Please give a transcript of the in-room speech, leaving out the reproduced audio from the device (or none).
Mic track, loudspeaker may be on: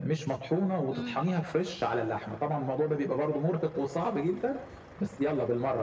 إمم.